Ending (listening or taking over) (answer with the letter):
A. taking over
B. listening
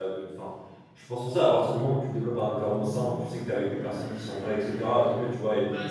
A